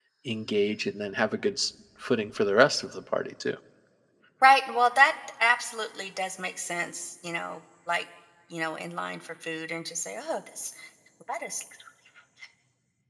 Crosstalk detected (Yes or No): No